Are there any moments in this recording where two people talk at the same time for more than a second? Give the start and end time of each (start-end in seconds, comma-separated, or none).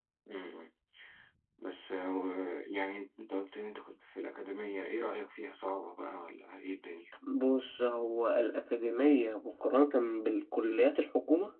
none